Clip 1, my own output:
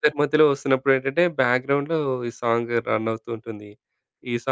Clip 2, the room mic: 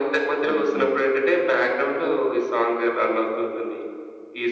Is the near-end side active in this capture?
Yes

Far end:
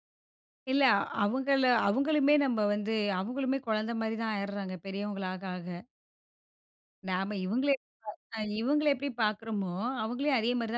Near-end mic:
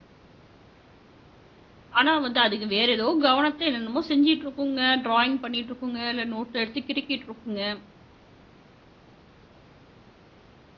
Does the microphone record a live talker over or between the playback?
Yes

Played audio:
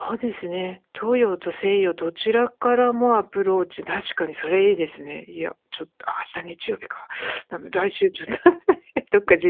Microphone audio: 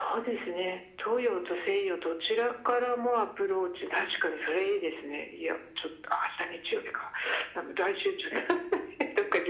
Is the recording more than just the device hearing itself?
No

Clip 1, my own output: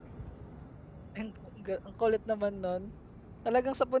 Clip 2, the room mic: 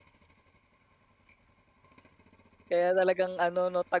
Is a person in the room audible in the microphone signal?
Yes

